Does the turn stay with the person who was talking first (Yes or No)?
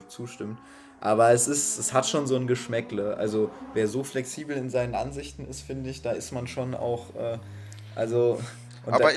No